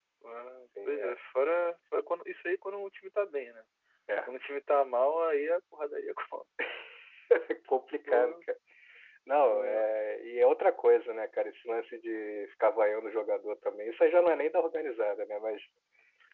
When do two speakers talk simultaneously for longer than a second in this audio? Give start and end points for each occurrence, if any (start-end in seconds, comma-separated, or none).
none